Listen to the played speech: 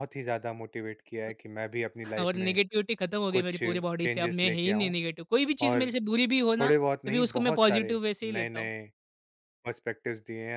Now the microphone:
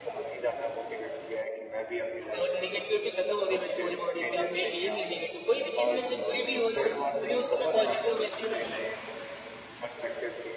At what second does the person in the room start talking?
none

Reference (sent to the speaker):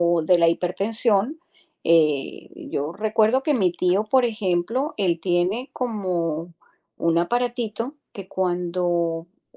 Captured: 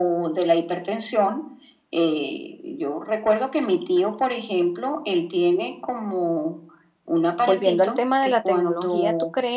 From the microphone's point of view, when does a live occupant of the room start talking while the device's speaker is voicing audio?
7.4 s

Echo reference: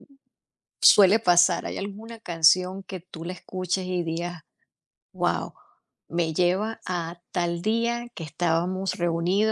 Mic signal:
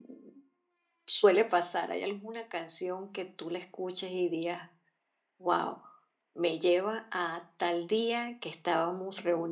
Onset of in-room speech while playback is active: none

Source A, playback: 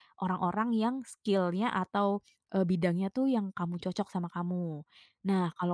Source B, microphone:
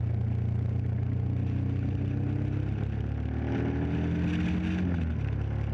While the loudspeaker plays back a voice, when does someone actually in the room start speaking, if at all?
none

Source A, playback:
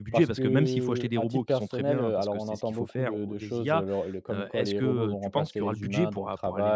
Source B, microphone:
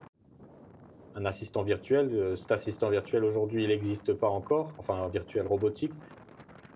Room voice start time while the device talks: 1.1 s

